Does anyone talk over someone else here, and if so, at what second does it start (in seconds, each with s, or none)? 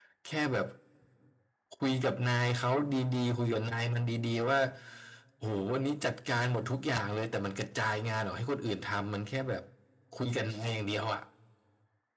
none